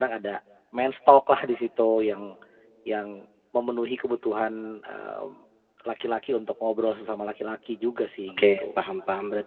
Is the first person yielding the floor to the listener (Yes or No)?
Yes